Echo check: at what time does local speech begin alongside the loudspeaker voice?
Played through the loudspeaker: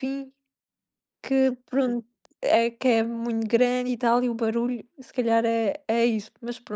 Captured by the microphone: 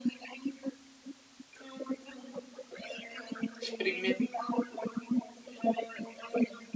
3.6 s

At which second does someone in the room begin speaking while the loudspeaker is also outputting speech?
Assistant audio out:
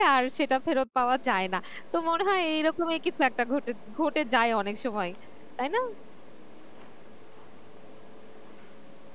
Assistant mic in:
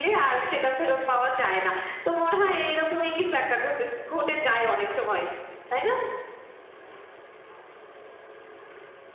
none

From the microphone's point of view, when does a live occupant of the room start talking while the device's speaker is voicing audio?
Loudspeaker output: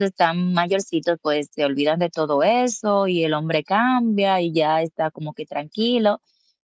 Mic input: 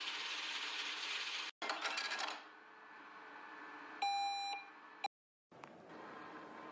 none

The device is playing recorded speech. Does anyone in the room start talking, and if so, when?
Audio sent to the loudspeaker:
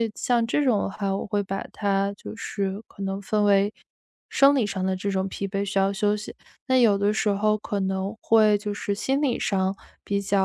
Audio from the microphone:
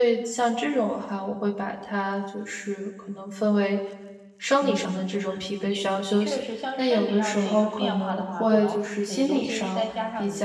4.6 s

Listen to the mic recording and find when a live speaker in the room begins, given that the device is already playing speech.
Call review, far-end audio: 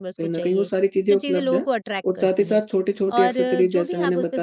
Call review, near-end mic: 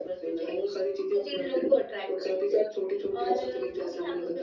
none

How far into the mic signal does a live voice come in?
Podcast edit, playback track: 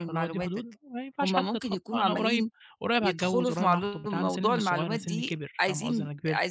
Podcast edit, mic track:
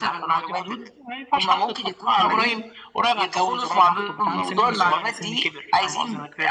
none

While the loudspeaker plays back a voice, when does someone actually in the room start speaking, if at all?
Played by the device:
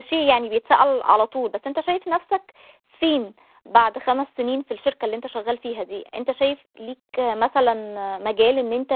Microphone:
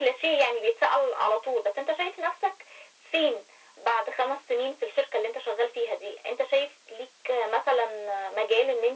none

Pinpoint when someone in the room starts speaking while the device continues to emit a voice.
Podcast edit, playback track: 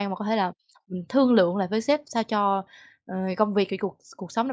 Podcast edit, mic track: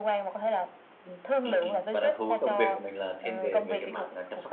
1.4 s

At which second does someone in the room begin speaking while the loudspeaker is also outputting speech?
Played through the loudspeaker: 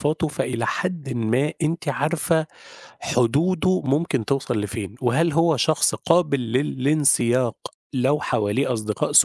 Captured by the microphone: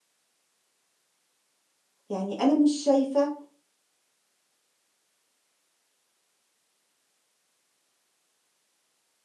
2.1 s

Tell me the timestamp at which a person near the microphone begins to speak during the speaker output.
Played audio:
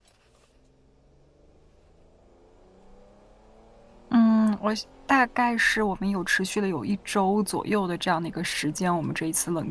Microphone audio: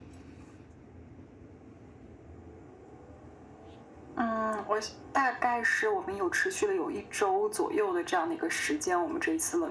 none

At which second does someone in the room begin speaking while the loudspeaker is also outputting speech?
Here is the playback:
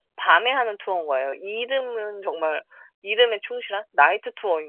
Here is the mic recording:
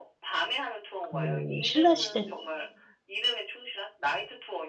1.0 s

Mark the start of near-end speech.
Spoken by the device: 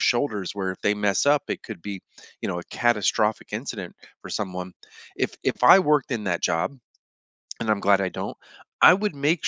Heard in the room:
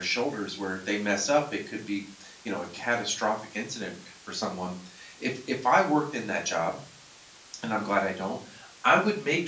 none

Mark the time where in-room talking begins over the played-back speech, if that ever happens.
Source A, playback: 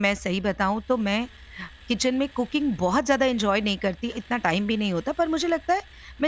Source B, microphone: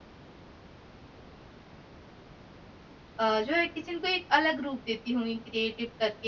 3.2 s

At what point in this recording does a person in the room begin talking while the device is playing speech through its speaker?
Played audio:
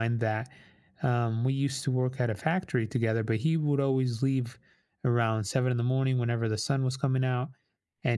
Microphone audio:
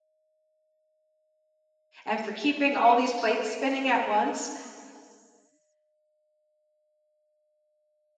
2.1 s

